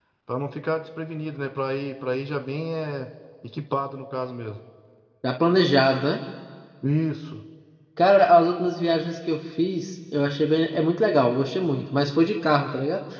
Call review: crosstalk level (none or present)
none